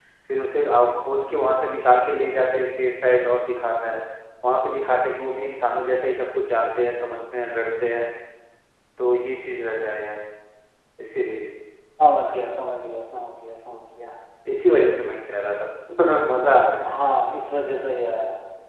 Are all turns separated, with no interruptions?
Yes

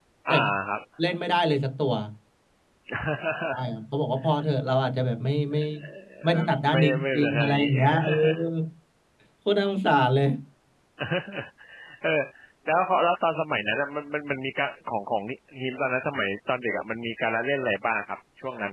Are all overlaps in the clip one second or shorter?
No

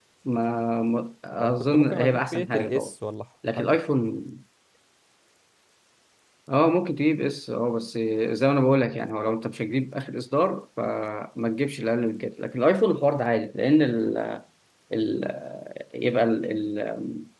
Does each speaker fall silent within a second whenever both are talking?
No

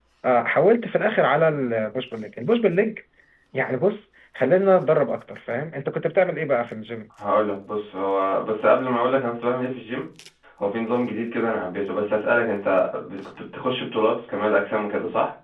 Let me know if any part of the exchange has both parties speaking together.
No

